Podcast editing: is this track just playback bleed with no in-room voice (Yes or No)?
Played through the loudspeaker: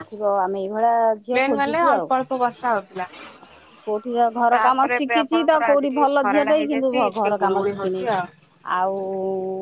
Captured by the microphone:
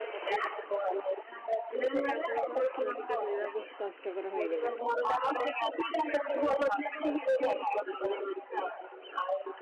No